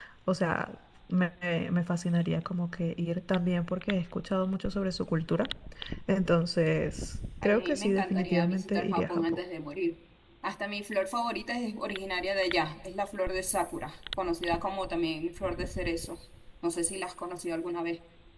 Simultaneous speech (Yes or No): Yes